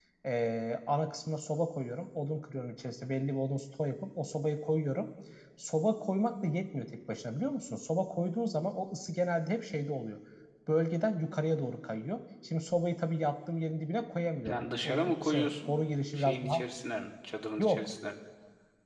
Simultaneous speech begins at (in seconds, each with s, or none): 14.4 s